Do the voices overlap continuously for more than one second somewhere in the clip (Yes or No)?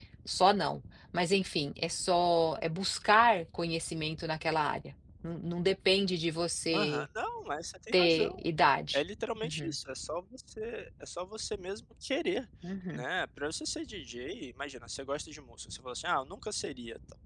No